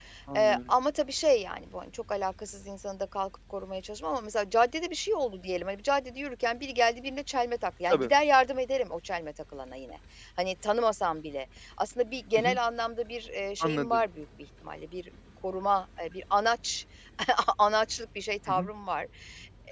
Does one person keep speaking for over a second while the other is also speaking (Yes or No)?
No